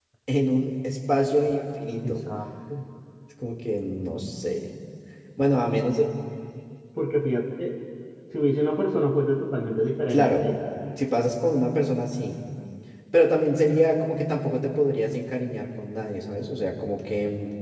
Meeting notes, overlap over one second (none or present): none